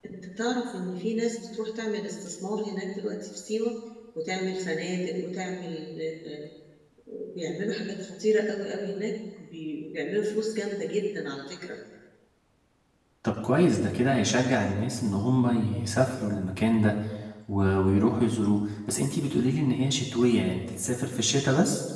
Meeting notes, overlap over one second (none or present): none